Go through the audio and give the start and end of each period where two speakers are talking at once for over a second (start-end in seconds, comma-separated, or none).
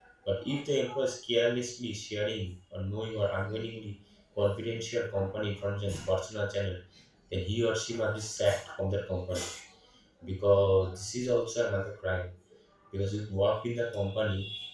none